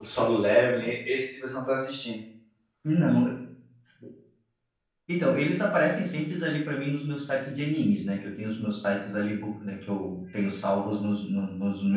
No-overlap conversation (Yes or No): Yes